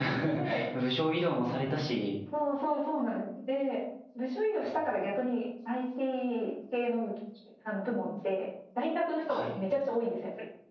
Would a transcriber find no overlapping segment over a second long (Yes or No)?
Yes